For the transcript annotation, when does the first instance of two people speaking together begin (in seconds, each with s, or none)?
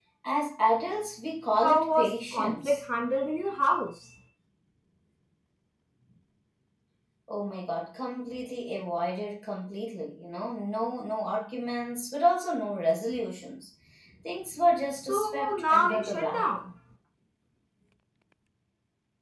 1.6 s